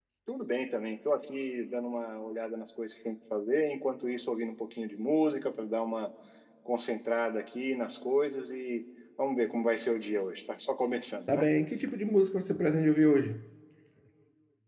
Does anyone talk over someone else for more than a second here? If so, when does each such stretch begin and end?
none

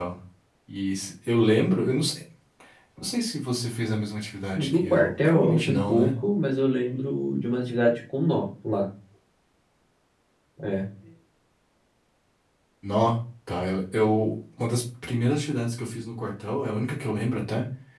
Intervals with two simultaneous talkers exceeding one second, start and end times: 4.6-6.1

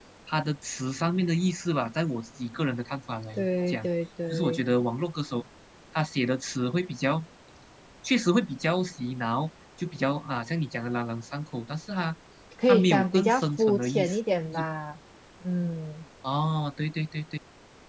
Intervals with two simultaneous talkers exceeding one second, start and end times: 12.7-14.2

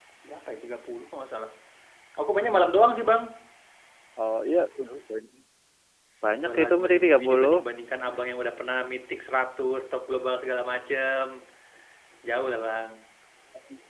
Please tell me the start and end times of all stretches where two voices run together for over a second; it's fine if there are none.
6.3-7.5

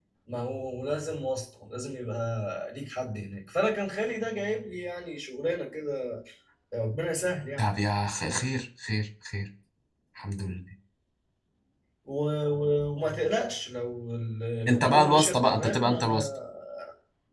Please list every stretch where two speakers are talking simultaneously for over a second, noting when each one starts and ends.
14.7-16.2

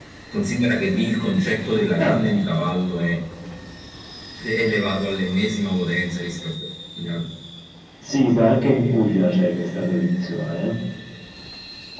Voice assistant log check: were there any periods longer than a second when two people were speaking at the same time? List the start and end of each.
none

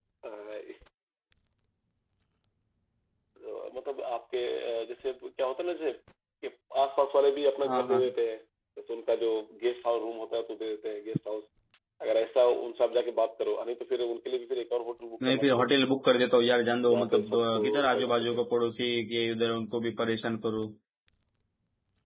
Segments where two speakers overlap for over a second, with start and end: 16.8-18.4

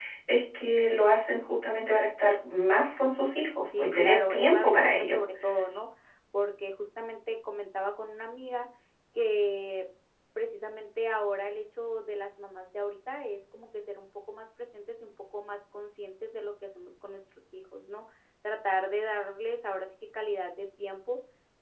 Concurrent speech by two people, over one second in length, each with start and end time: 3.8-5.2

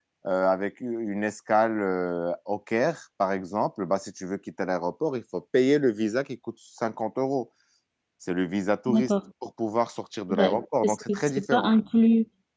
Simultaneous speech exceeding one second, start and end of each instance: 10.3-11.7

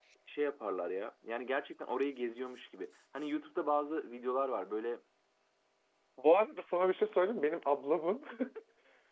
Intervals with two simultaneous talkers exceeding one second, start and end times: none

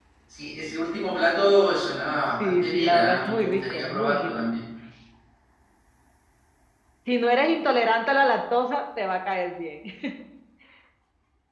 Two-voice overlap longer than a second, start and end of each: 2.4-4.3

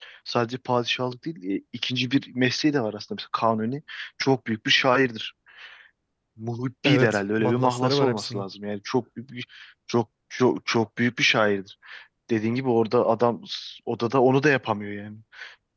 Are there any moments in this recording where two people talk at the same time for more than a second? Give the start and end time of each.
6.8-8.4

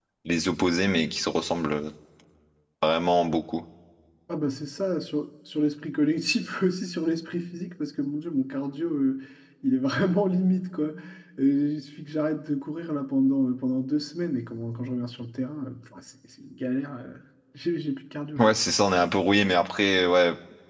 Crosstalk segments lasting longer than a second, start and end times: none

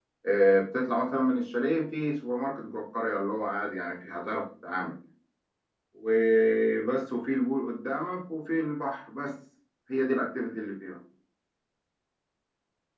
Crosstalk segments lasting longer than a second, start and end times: none

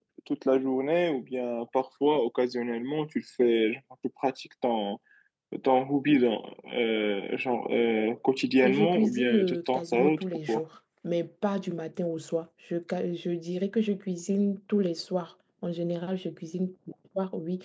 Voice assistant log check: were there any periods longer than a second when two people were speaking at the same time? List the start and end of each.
8.6-10.6

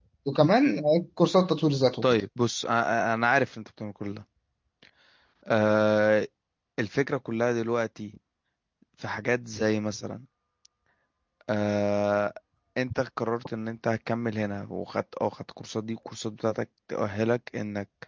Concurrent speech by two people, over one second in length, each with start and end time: none

